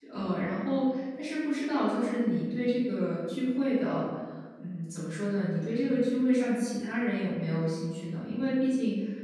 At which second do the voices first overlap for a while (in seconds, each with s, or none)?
none